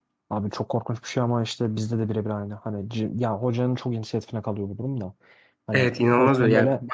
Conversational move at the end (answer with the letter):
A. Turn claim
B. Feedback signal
A